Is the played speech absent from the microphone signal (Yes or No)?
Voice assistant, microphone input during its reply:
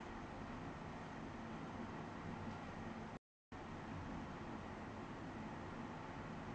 Yes